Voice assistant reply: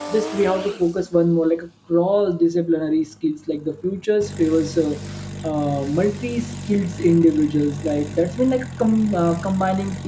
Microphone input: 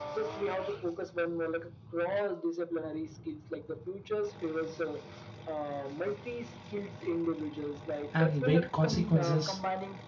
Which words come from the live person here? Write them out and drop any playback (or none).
and weight consequences